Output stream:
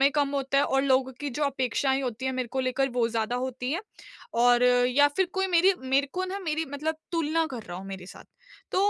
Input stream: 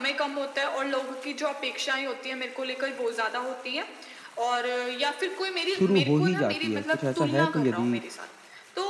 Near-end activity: present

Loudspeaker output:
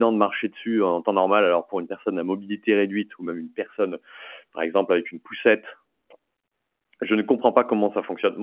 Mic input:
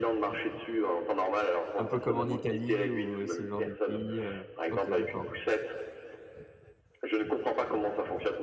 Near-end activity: present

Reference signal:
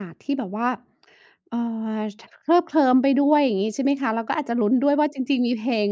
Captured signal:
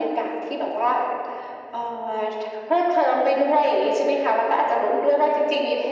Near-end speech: none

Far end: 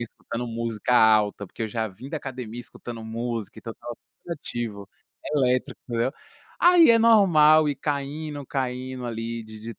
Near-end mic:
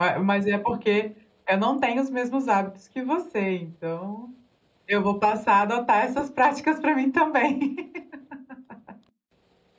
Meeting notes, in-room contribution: present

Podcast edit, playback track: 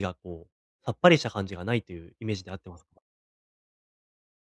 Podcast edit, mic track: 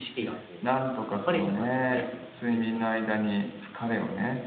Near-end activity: present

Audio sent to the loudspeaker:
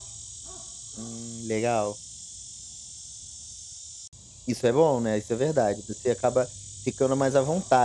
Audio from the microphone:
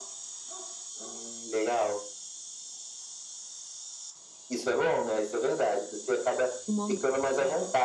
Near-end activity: present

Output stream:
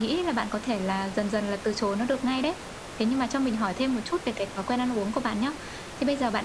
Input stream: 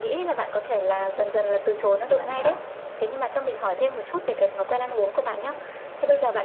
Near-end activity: present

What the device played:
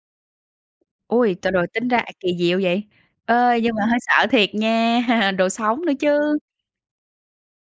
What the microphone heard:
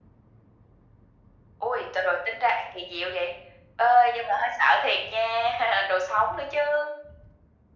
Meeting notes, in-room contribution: none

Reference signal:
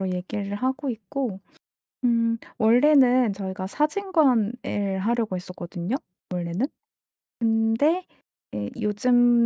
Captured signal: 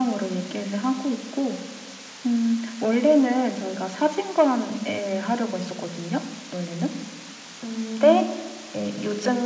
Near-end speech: none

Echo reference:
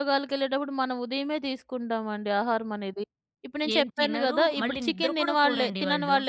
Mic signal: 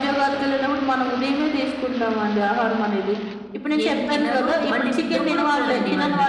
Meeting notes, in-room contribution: none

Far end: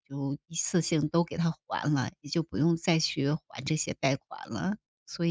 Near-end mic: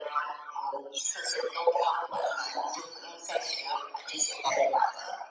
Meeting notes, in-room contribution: none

